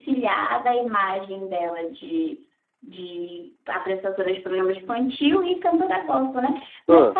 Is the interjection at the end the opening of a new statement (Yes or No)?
No